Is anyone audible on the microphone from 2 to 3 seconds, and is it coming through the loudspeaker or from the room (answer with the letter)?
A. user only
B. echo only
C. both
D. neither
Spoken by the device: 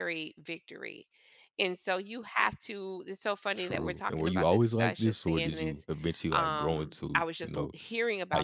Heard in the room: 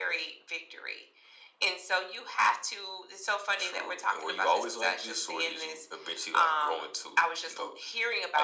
B